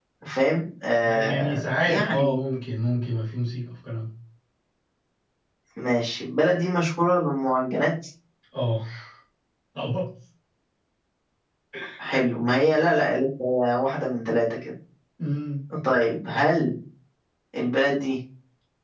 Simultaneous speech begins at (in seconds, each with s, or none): 0.9 s